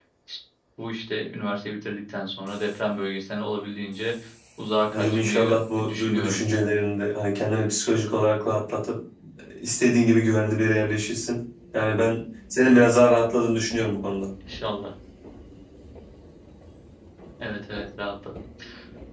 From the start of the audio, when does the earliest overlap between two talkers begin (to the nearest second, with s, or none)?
5 s